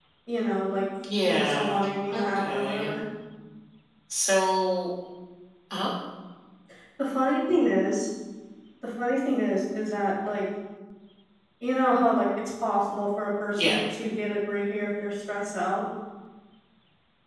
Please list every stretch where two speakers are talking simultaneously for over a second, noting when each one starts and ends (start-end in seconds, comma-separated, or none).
1.2-3.0